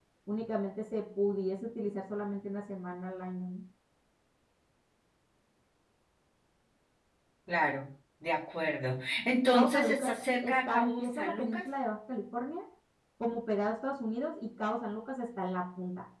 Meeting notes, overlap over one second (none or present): present